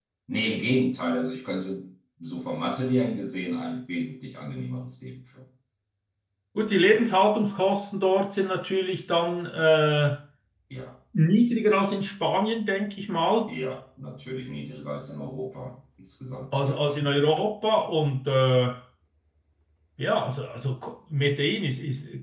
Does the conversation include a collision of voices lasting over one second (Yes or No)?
No